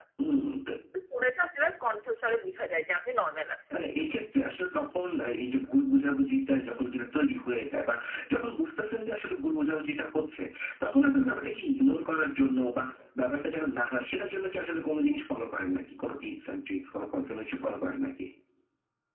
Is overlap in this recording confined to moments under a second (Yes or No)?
Yes